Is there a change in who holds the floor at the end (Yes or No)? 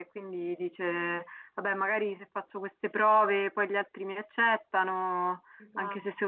No